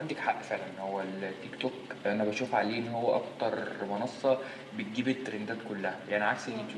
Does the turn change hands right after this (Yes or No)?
No